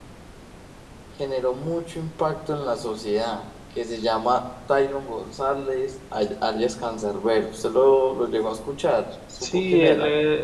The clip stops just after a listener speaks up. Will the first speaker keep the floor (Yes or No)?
No